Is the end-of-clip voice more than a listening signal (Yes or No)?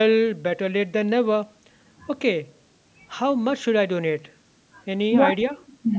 Yes